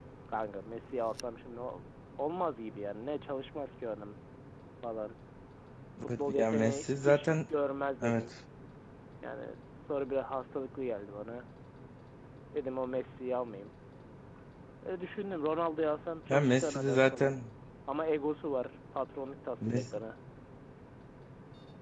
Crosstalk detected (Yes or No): Yes